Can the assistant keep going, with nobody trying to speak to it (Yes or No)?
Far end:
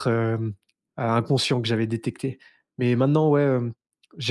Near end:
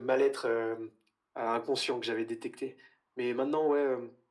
Yes